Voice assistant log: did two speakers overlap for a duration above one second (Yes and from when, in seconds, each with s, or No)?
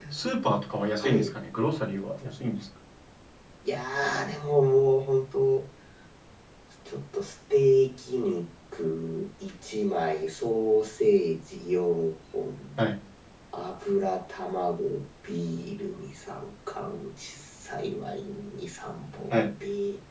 No